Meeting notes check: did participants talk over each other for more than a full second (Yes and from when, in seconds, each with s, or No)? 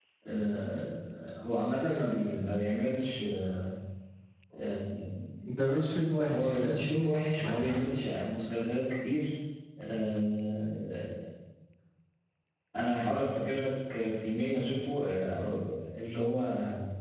No